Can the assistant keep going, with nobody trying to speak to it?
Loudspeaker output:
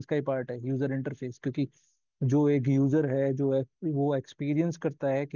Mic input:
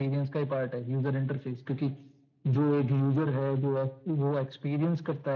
Yes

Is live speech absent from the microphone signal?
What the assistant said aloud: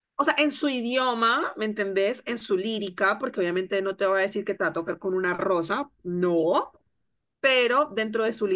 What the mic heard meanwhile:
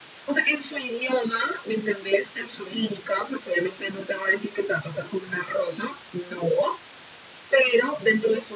Yes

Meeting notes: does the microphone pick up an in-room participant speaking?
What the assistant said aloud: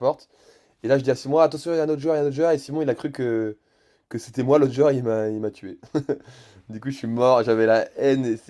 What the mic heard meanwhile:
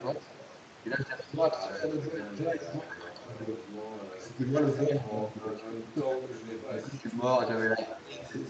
Yes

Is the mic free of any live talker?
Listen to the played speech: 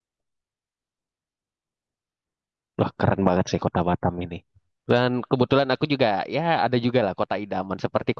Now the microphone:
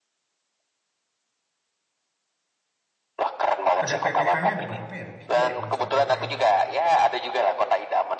No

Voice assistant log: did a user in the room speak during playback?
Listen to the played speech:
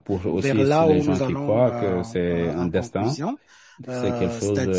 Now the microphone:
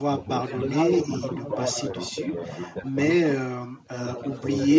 Yes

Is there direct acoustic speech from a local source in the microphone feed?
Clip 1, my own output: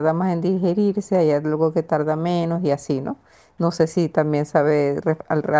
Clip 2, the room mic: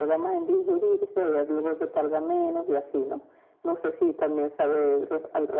No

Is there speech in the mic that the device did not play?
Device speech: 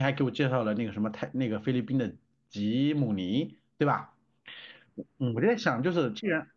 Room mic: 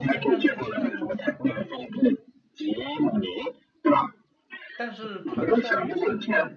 Yes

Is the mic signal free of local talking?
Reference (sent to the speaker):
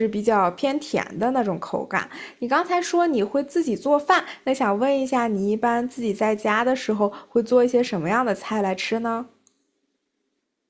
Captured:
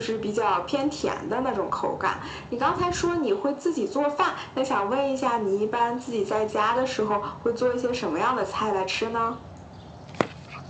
Yes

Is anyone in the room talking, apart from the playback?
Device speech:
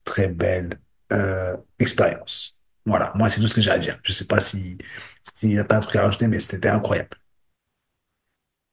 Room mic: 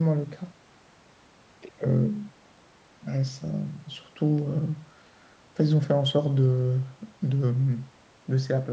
Yes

